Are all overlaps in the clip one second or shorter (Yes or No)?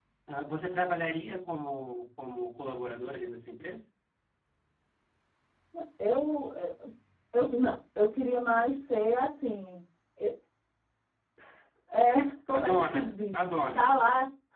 No